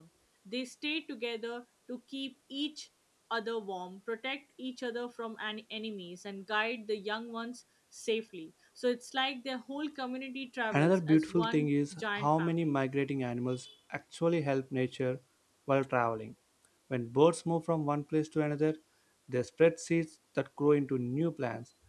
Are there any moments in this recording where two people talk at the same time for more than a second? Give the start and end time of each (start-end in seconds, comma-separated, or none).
10.7-12.8